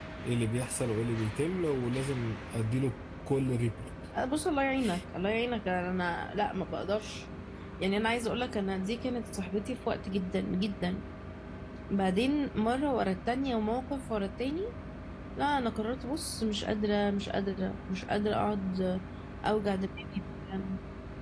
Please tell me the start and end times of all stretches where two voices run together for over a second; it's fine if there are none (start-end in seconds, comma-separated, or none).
none